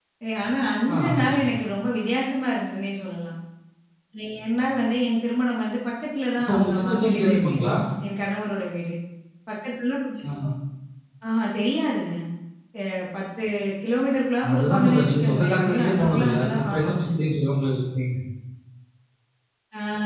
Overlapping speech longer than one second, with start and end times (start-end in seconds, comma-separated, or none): 6.4-7.7, 14.5-17.0